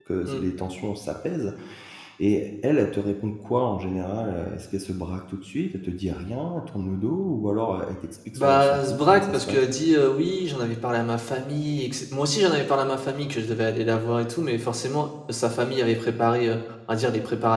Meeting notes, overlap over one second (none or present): present